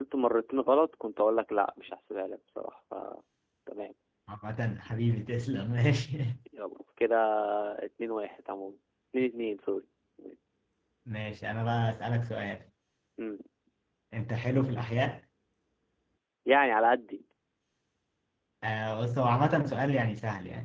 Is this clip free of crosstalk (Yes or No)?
Yes